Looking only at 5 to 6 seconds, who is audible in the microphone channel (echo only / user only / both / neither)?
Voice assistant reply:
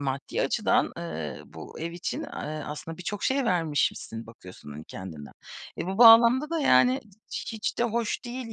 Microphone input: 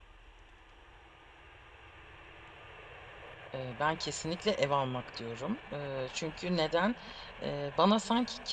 user only